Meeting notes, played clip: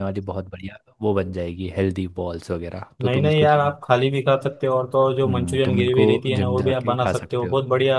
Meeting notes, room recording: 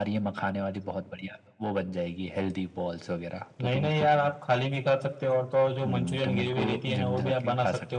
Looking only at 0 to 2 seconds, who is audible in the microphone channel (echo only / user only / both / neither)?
echo only